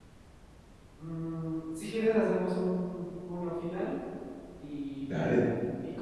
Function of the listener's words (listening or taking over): listening